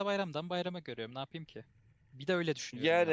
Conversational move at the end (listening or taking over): taking over